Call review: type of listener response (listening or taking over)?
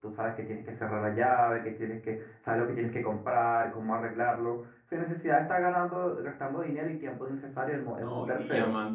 taking over